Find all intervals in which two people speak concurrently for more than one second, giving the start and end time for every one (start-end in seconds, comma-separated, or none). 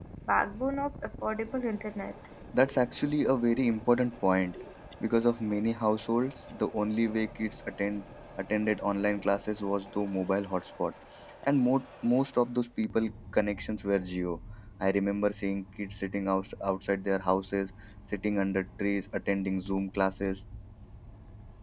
none